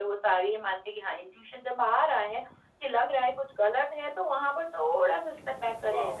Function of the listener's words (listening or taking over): taking over